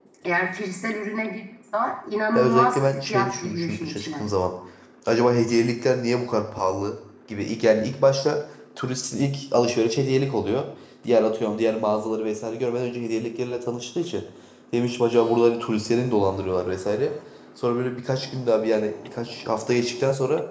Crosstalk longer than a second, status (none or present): present